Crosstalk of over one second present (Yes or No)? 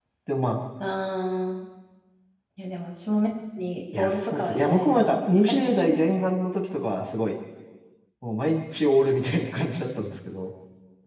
Yes